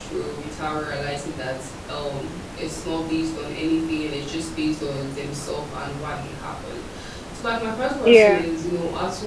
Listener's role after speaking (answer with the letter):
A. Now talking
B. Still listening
B